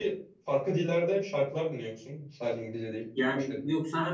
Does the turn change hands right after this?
Yes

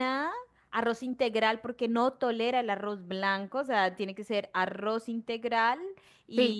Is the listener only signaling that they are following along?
Yes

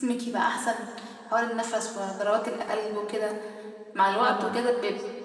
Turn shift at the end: No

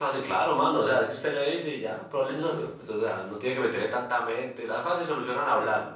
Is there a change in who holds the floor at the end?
No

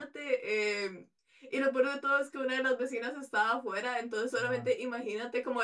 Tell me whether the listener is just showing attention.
Yes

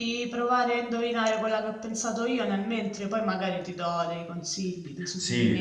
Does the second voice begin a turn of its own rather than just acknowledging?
Yes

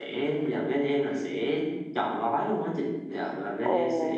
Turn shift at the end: No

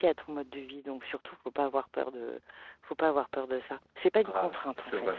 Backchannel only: No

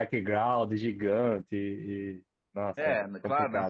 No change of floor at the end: No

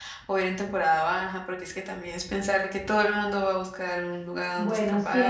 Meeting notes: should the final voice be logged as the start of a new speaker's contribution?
Yes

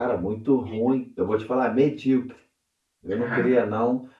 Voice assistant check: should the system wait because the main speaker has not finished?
Yes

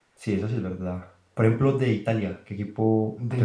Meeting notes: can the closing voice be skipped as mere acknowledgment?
No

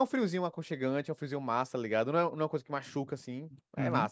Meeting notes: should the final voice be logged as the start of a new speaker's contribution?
Yes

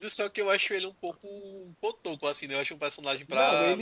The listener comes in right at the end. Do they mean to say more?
Yes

